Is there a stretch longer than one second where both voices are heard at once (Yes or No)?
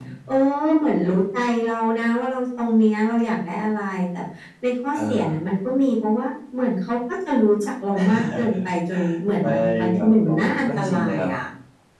Yes